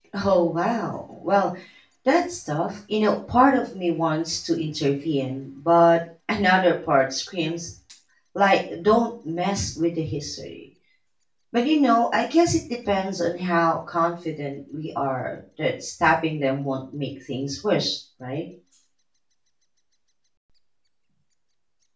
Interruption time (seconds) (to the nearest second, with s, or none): none